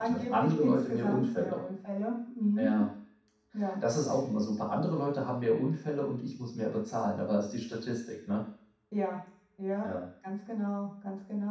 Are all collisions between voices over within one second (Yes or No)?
No